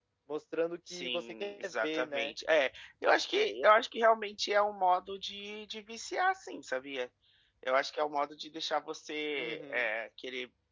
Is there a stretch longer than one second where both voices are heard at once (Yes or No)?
Yes